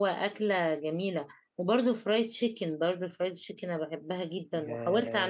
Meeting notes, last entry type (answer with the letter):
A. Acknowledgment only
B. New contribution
B